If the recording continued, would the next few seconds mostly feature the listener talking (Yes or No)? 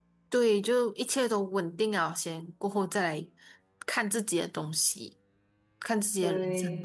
No